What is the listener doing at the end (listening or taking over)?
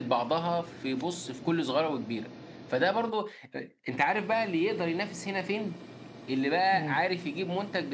listening